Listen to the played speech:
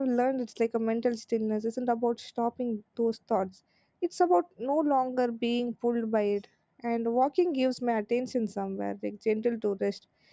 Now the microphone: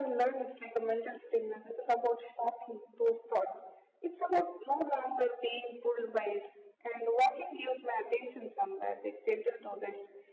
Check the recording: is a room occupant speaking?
No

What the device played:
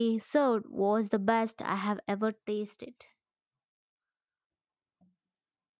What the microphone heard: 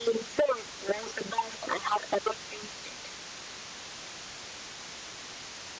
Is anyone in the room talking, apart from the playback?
No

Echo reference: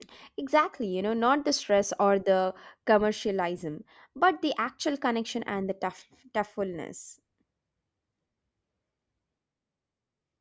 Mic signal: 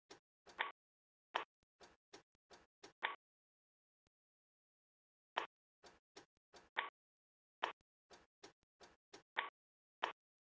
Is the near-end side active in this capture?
No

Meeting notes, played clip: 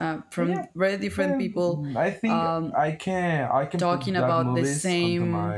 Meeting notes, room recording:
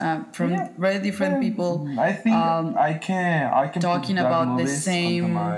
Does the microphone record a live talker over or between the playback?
No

